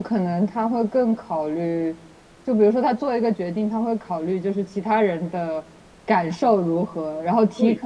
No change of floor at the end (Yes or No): Yes